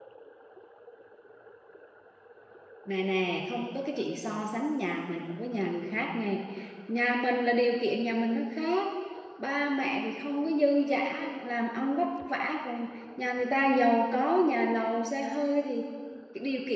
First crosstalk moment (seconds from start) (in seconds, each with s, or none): none